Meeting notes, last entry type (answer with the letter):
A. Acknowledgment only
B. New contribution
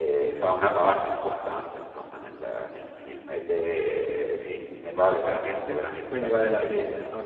B